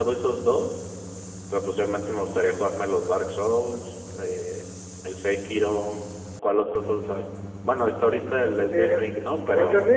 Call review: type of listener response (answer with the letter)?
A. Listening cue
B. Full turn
B